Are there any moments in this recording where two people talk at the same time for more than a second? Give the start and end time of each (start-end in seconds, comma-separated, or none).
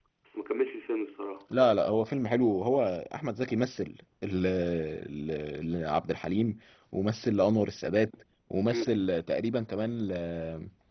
none